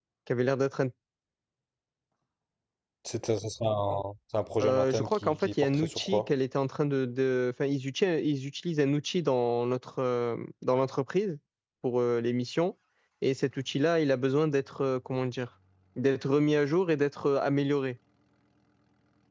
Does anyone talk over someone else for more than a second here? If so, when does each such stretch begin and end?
4.6-6.3

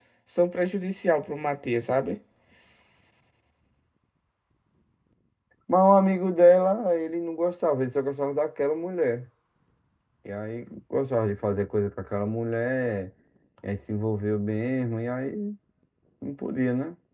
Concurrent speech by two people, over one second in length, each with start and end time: none

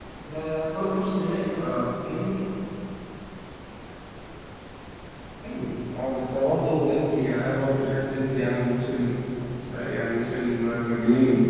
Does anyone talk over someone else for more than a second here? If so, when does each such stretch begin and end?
none

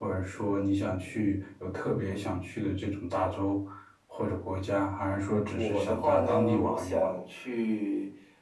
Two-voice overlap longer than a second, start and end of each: 5.5-7.1

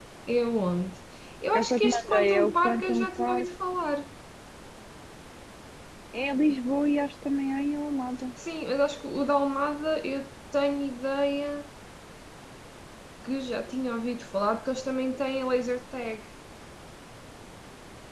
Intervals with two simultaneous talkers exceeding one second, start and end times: 1.6-3.5

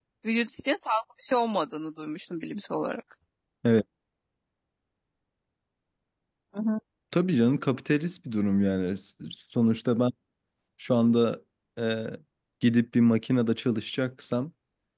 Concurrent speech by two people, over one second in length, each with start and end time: none

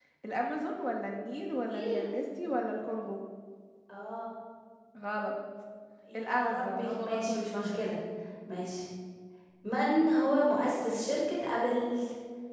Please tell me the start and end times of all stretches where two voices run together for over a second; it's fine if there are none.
6.2-7.8

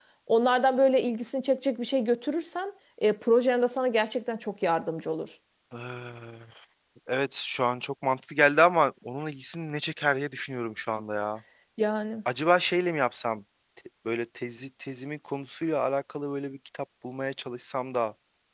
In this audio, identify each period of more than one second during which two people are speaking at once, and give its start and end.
none

